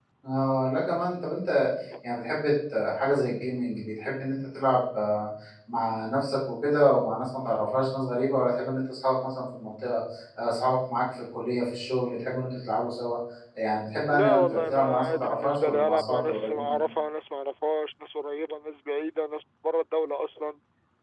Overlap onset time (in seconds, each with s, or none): 14.1 s